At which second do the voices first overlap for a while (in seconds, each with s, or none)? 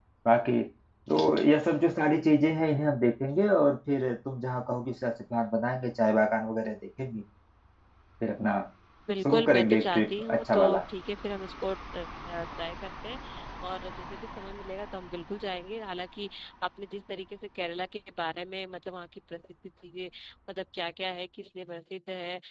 9.2 s